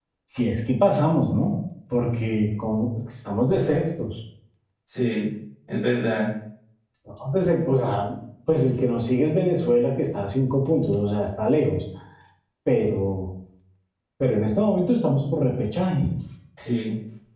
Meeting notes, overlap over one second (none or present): none